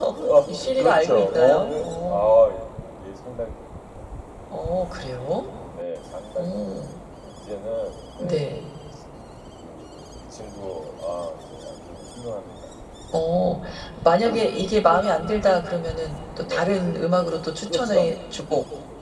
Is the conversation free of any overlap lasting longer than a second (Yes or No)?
No